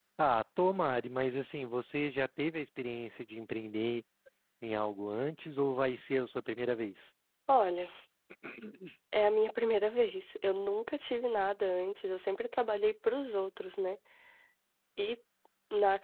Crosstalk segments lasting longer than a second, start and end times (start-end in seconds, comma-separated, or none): none